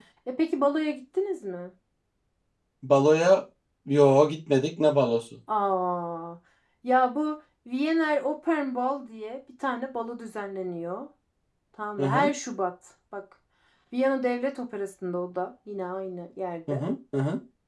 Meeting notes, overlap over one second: none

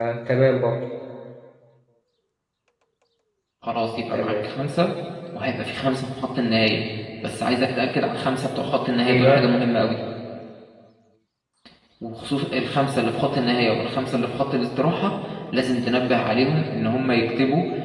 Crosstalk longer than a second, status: none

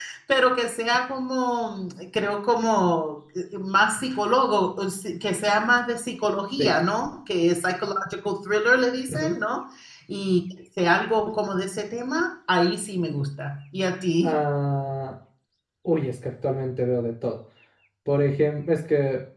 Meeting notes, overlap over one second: none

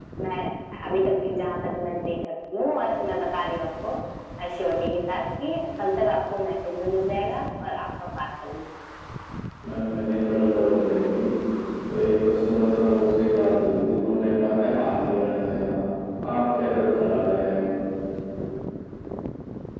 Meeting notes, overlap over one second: none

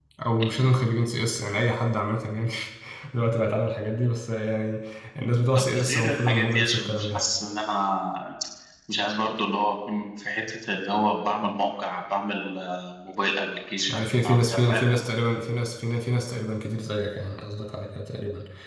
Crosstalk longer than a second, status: present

